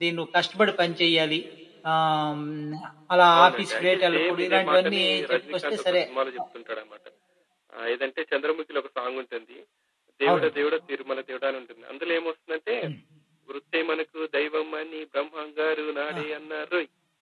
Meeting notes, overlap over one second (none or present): present